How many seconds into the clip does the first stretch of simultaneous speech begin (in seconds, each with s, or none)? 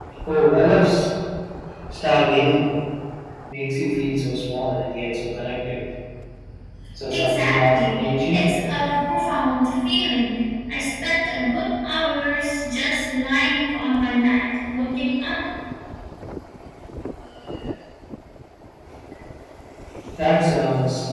7.1 s